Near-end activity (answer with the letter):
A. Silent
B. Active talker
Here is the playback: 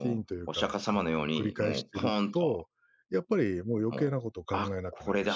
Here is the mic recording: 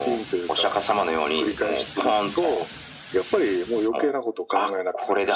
A